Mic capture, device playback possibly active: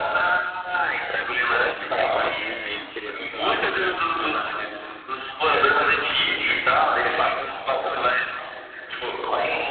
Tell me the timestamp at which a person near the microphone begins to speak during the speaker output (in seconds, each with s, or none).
1.7 s